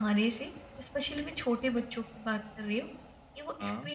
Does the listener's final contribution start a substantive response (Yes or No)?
No